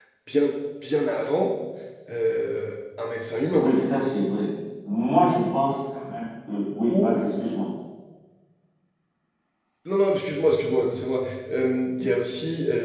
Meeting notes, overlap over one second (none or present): none